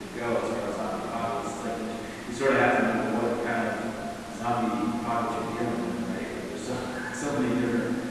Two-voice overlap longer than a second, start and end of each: none

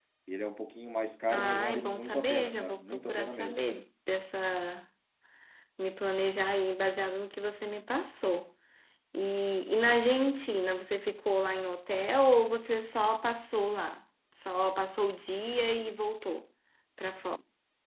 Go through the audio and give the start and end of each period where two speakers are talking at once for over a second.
1.3-3.6

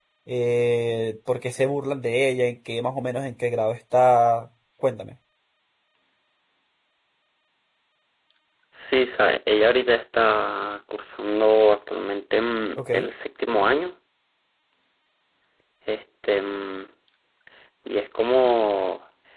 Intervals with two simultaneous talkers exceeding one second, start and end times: none

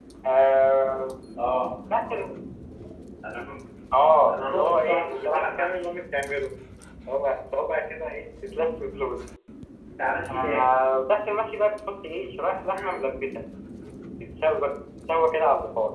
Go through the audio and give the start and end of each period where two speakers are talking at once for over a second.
4.3-6.0

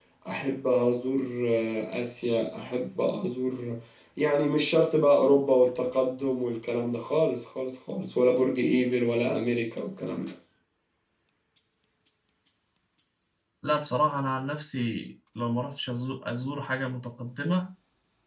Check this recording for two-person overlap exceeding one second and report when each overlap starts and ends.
none

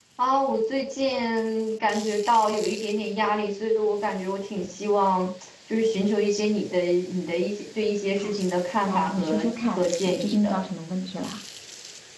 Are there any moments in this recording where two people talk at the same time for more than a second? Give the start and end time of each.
8.9-10.6

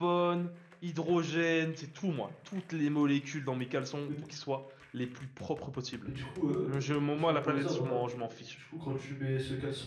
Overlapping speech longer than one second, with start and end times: 6.7-8.5

